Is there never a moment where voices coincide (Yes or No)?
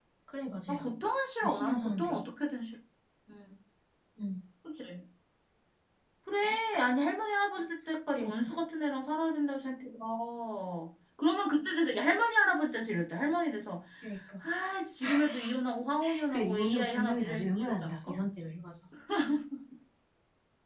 No